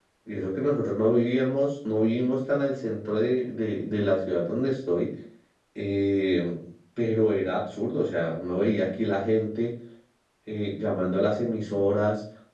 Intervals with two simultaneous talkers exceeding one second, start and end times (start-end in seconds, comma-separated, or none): none